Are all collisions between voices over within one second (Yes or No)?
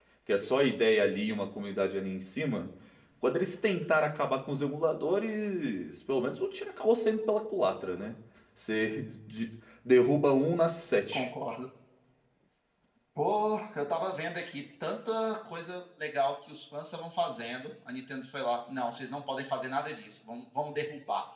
Yes